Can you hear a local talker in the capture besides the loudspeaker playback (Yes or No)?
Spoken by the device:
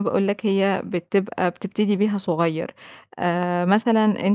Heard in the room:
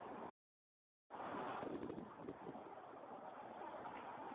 No